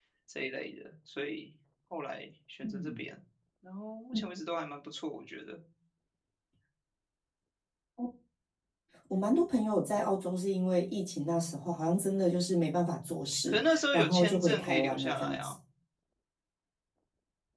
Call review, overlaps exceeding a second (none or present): present